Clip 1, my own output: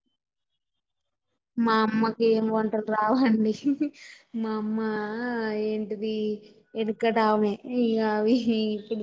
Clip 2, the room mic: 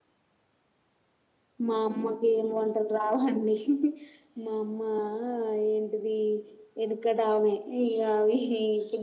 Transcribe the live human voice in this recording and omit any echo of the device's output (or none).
none